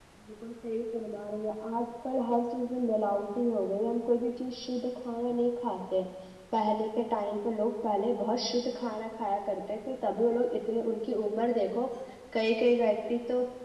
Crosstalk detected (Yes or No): No